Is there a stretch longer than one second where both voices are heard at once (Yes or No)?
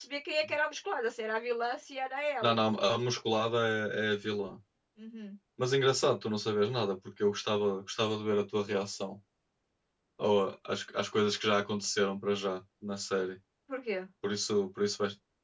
No